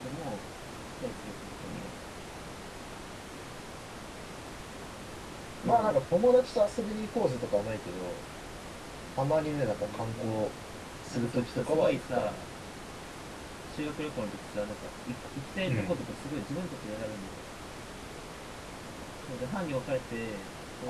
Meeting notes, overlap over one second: present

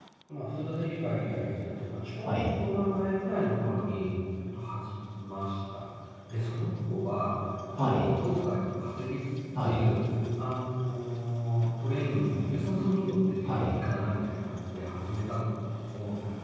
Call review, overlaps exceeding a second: none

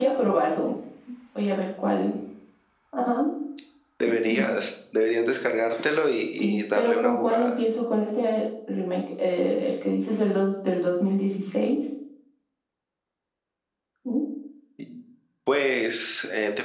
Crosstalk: present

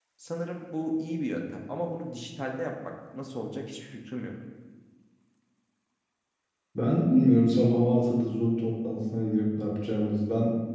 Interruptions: none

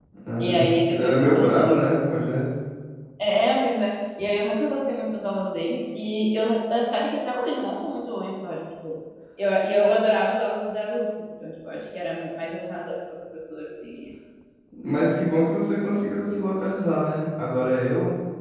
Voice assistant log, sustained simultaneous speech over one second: present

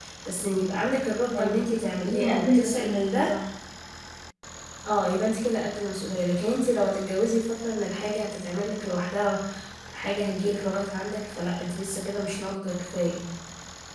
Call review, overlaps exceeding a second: present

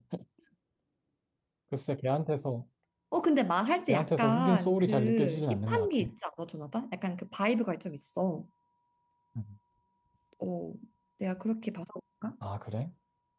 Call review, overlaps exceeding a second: present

